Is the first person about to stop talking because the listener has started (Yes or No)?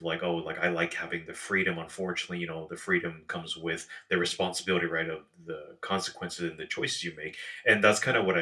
No